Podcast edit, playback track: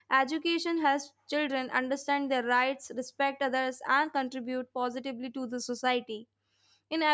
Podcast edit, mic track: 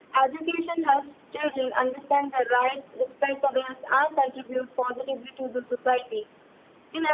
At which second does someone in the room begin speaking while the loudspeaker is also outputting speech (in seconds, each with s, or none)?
none